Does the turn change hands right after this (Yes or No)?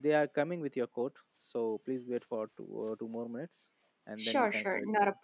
Yes